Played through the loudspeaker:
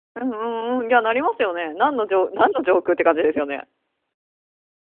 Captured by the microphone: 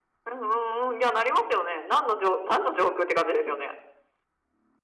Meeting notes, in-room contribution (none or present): none